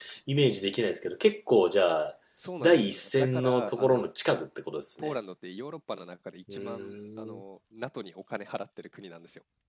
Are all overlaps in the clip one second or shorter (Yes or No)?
No